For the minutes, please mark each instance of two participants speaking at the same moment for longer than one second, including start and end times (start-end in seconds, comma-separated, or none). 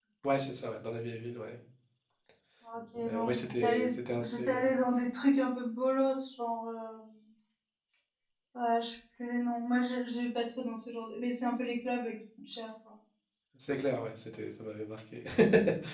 3.1-4.6